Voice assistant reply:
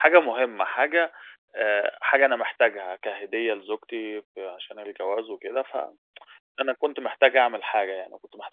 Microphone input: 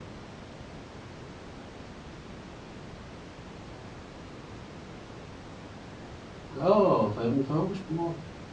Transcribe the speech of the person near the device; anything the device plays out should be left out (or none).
آه، فاهمني؟ فهو مش مهم